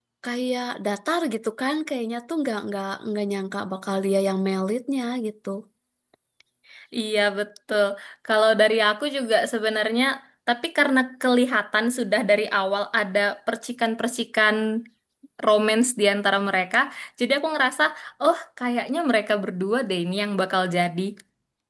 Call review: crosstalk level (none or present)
none